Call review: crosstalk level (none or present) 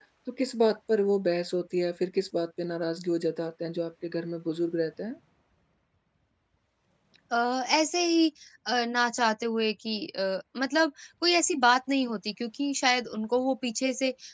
none